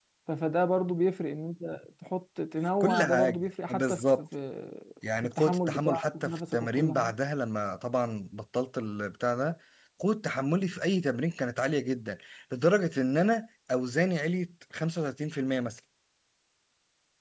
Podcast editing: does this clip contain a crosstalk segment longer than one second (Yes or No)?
Yes